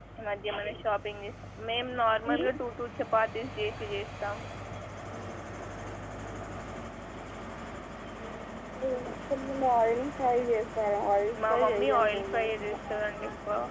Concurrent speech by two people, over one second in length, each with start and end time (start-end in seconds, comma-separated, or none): 11.5-12.7